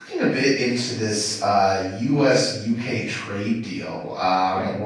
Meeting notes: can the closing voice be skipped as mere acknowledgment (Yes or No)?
Yes